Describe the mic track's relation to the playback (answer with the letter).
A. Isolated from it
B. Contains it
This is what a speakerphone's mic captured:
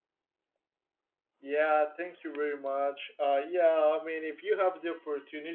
A